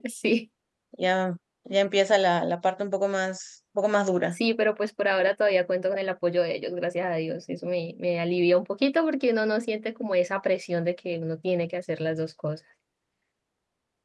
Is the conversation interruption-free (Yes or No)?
Yes